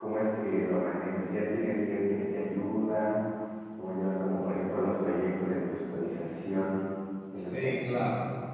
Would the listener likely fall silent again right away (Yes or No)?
No